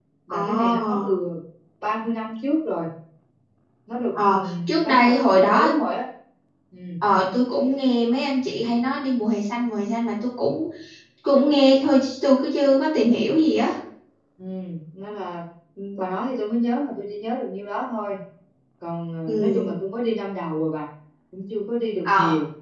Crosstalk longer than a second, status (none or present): present